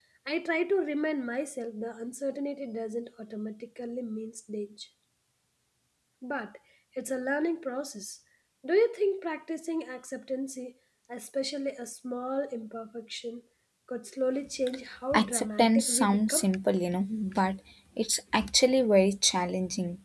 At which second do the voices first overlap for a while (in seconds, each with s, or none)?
15.1 s